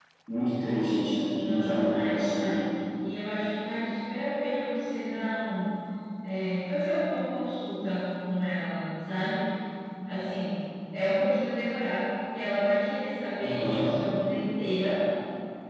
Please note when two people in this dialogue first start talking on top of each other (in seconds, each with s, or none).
1.4 s